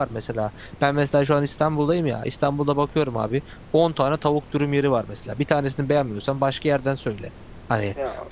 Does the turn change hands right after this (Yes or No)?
No